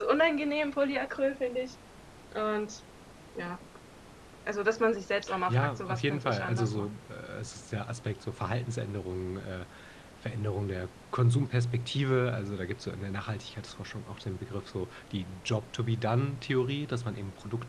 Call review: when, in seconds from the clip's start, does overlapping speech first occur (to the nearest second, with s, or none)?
5 s